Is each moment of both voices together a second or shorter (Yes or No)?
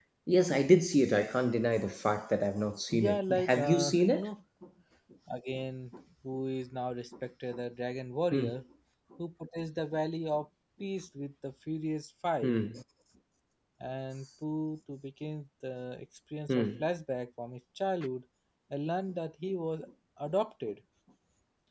No